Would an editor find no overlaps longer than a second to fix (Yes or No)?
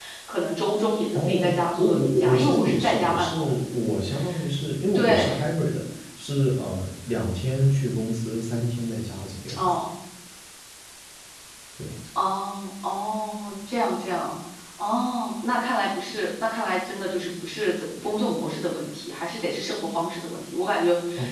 No